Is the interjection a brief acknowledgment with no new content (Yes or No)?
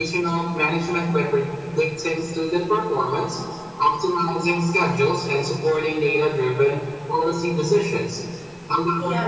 Yes